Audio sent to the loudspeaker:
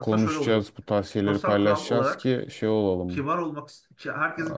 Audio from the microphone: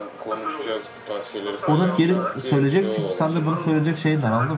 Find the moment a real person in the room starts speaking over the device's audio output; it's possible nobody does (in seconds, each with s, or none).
1.6 s